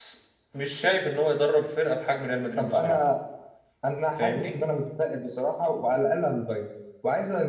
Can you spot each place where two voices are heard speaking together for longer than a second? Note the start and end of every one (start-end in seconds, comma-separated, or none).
none